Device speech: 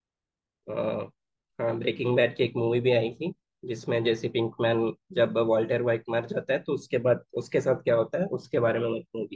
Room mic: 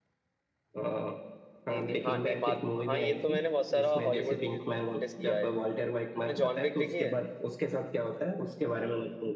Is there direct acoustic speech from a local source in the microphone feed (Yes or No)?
Yes